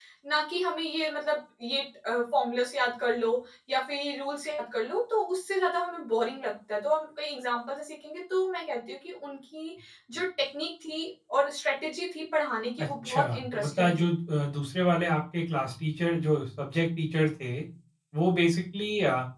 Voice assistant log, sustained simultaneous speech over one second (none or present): present